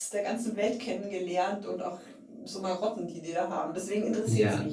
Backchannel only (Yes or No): No